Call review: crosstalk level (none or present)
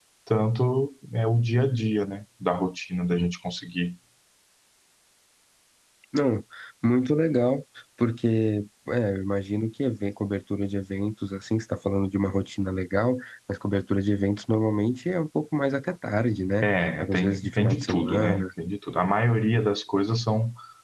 present